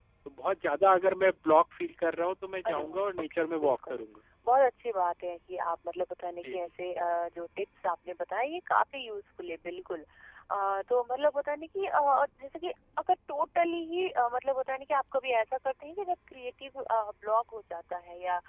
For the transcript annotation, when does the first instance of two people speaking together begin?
2.6 s

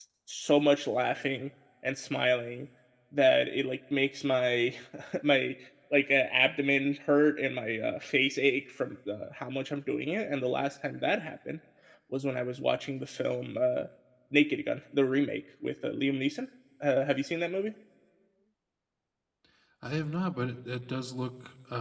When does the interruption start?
none

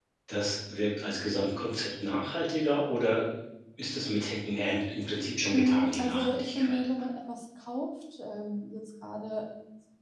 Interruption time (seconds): 5.5 s

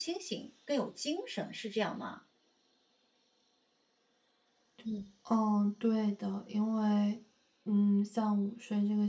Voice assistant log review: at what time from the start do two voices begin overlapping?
none

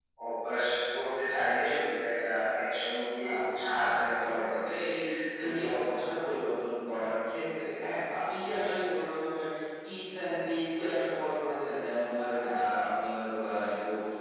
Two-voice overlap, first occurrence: 3.4 s

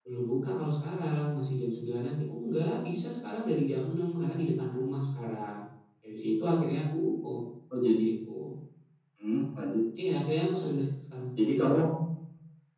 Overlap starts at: none

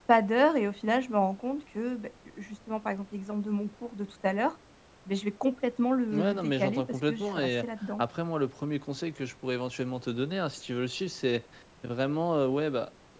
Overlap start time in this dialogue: 6.1 s

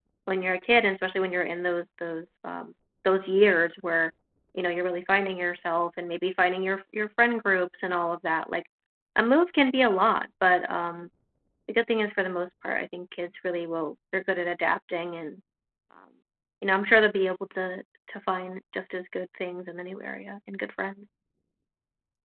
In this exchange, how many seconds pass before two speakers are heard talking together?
none

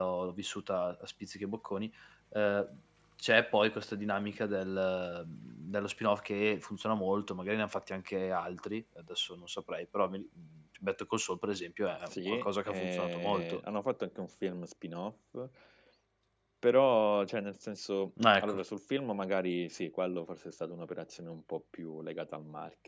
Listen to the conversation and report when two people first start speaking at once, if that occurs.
12.0 s

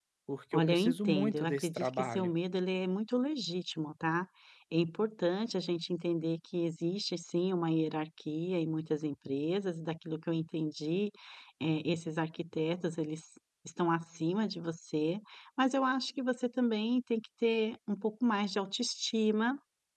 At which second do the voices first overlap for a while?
0.5 s

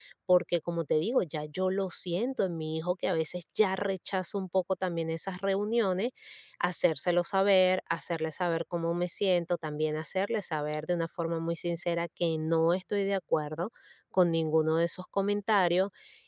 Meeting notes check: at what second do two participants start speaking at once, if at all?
none

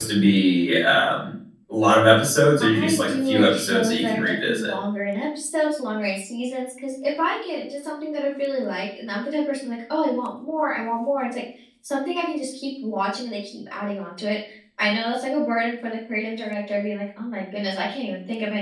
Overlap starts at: 2.6 s

